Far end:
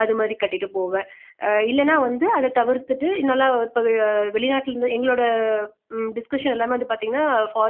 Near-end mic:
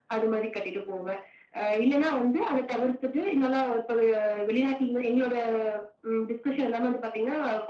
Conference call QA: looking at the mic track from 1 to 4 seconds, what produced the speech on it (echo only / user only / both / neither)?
echo only